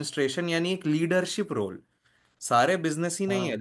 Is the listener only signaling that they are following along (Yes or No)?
Yes